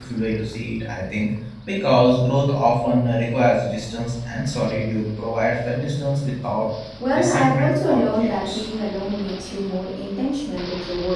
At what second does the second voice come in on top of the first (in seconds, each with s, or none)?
7.1 s